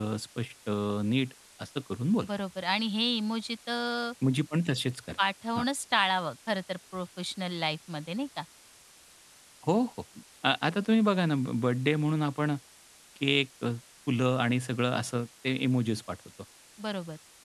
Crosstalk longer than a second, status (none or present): none